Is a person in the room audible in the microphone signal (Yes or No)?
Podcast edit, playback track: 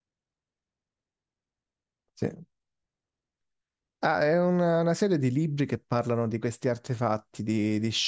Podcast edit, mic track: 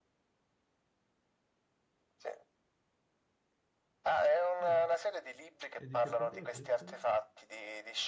Yes